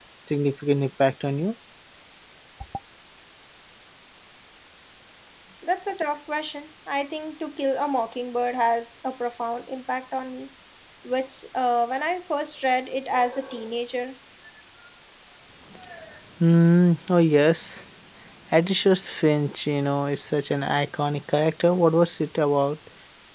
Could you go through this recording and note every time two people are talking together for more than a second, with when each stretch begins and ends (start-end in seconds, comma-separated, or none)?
none